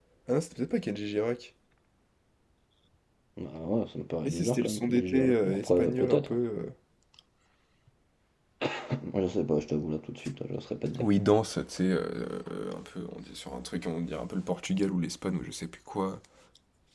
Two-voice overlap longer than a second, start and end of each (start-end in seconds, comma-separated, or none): 4.2-6.4